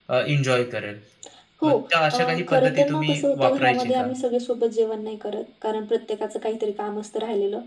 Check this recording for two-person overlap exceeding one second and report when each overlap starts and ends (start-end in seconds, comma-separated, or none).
2.1-4.1